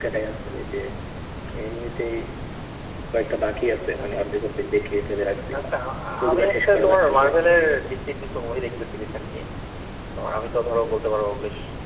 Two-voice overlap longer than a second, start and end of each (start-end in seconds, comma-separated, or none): 6.2-7.5